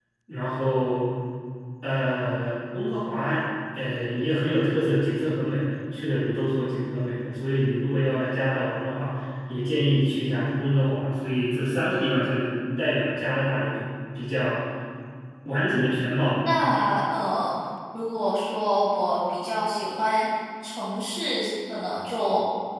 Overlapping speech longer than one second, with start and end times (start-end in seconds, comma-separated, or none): none